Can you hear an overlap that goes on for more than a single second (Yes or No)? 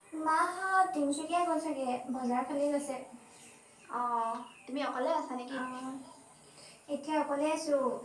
No